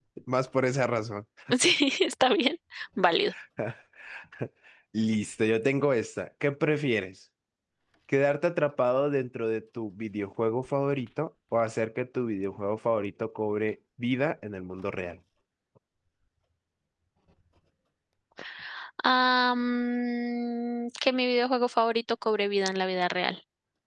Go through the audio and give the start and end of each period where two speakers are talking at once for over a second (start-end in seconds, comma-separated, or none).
none